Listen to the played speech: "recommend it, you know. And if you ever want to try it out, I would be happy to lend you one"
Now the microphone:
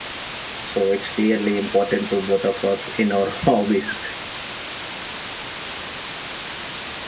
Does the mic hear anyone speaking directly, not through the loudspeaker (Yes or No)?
Yes